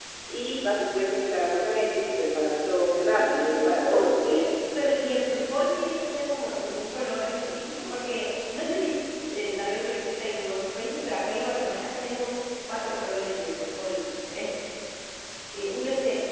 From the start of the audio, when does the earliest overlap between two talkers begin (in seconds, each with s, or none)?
3.0 s